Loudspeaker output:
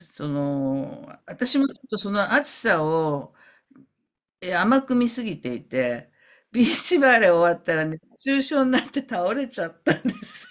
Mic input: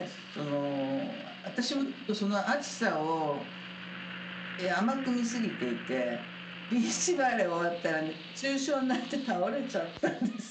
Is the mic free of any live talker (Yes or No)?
Yes